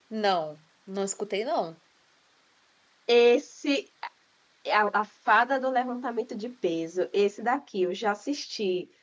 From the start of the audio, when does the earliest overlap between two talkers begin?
none

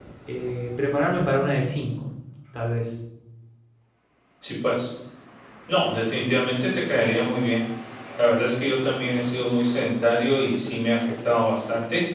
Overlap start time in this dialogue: none

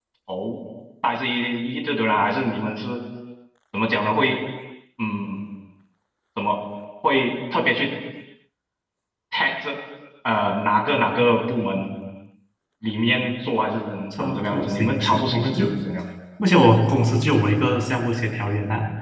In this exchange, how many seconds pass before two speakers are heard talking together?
14.1 s

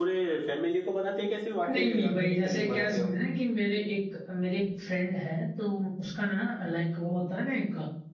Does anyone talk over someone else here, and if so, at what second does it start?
1.7 s

